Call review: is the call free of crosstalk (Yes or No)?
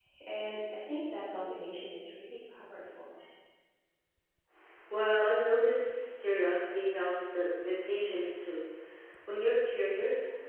Yes